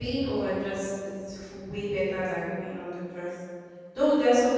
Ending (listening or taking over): listening